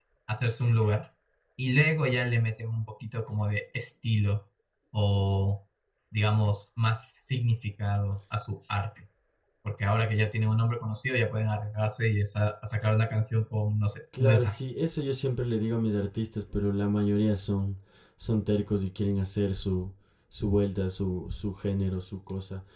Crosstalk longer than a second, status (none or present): none